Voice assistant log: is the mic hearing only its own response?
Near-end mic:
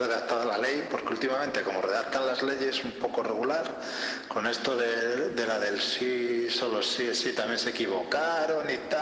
Yes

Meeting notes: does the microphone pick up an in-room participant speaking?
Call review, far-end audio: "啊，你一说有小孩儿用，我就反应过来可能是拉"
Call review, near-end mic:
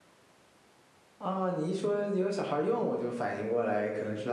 No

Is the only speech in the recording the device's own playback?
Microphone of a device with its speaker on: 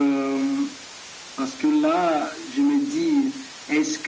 Yes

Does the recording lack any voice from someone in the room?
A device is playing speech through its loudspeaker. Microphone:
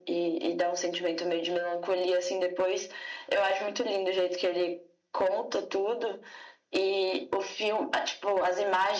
Yes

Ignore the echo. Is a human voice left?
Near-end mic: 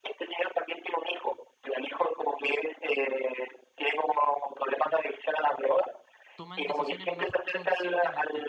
Yes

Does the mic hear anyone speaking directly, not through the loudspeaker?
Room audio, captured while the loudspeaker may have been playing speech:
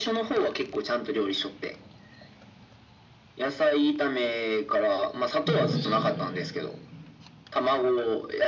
Yes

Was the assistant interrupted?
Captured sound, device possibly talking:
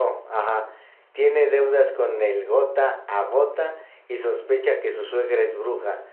Yes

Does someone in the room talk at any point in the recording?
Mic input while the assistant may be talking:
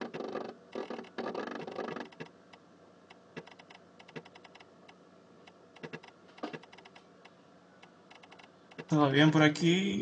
Yes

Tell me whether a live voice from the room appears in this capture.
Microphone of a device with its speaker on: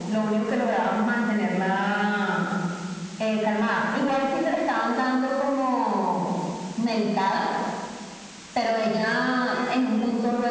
Yes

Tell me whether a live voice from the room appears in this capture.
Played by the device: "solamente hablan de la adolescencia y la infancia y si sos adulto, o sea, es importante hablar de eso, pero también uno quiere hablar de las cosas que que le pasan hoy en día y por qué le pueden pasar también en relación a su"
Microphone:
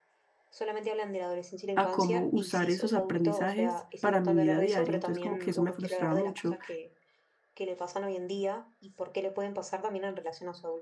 Yes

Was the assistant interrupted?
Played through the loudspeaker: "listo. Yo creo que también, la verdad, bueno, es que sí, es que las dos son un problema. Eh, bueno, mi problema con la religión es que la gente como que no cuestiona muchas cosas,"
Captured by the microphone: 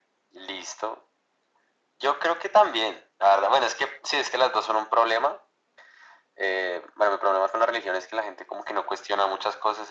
No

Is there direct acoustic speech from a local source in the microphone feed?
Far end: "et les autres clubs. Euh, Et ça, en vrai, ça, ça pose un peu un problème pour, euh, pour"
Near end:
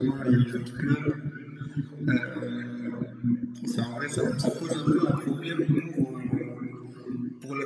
No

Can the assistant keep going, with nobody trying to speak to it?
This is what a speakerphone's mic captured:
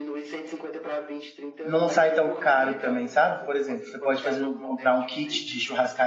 No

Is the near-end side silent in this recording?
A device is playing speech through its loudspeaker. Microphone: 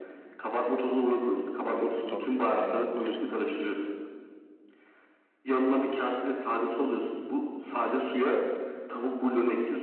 No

